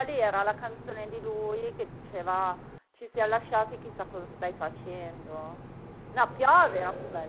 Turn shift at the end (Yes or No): No